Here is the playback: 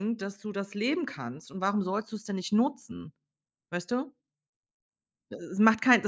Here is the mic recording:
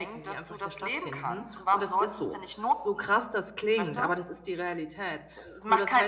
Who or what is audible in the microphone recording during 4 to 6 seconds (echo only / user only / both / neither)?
both